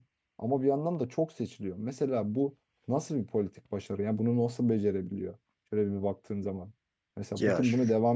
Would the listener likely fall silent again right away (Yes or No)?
Yes